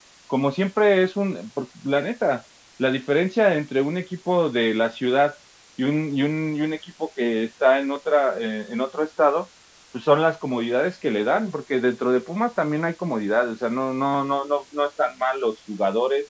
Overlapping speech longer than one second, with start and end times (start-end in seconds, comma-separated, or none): none